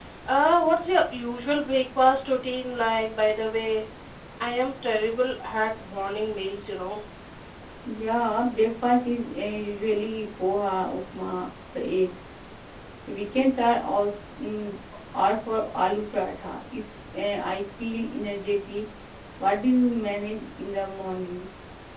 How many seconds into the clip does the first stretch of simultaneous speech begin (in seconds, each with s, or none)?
none